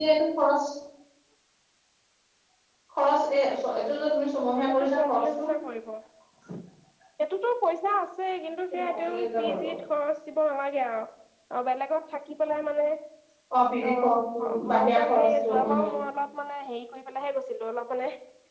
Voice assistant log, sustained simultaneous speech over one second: present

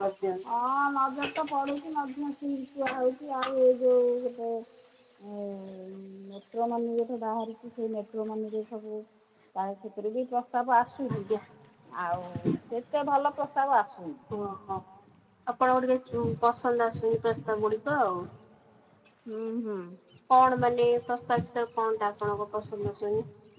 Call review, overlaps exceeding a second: none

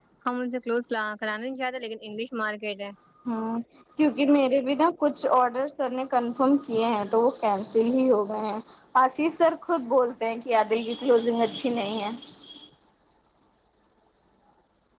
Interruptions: none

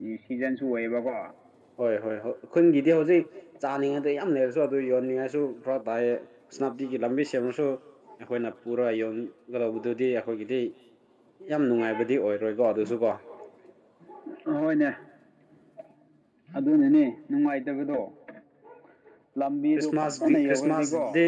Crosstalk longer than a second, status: present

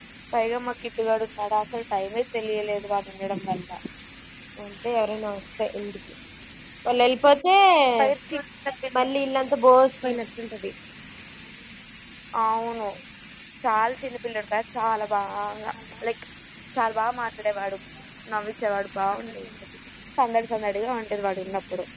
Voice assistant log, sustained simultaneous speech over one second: none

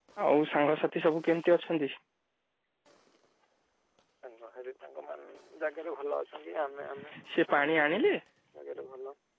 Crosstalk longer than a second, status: none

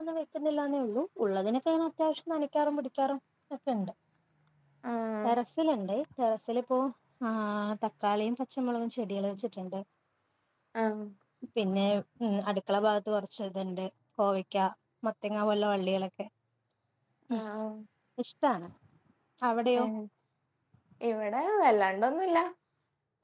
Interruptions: none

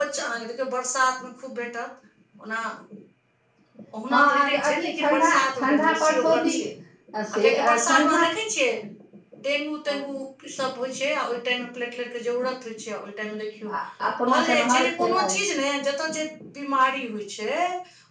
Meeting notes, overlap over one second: present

